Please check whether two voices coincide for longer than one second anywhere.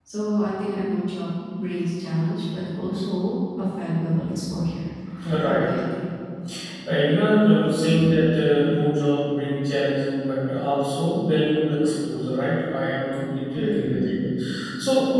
No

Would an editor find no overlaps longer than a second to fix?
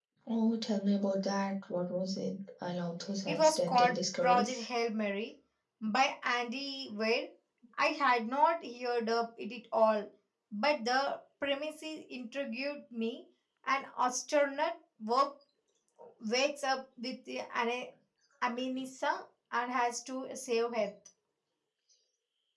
No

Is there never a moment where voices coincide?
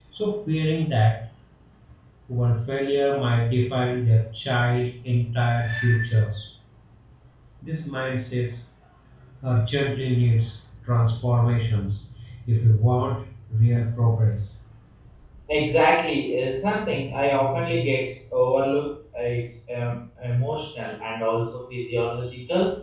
Yes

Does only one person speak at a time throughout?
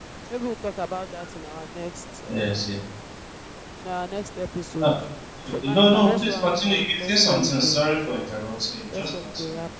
No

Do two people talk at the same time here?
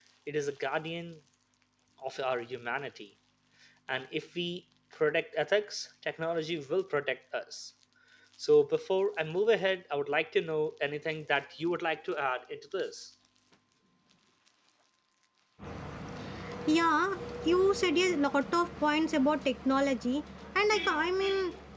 No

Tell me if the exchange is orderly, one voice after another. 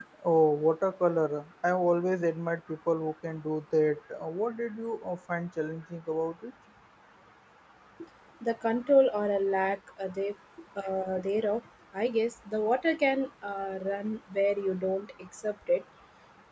Yes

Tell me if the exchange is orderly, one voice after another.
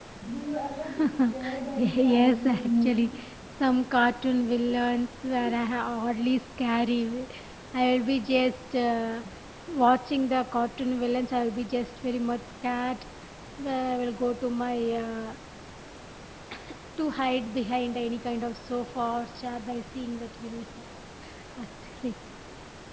No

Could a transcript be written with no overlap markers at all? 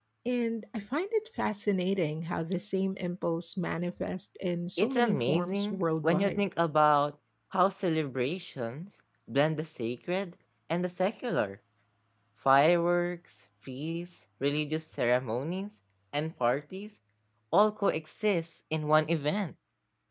No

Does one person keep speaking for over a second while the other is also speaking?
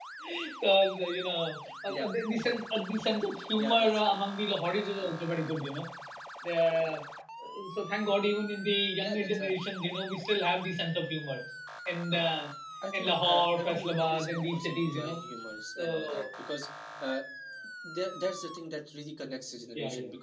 Yes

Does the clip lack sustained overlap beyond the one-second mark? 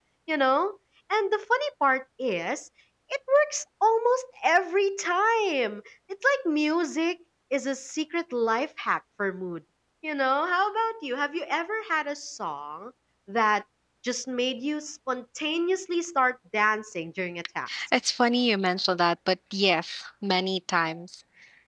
Yes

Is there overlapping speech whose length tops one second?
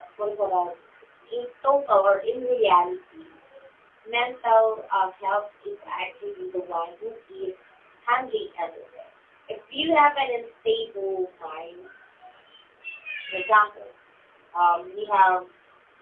No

